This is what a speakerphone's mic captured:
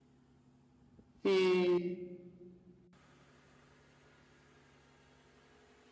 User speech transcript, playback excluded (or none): E